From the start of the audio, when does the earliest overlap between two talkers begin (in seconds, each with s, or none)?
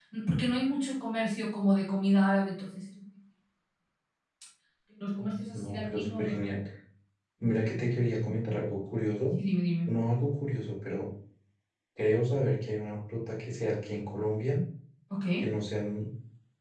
5.2 s